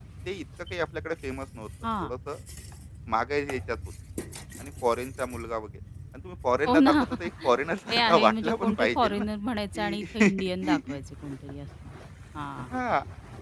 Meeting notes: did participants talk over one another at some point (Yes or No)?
Yes